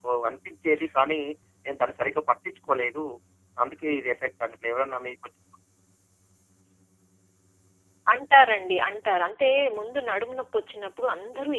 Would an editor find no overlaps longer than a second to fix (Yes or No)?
Yes